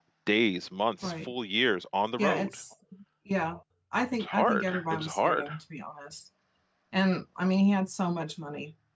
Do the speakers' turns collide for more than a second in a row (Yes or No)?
Yes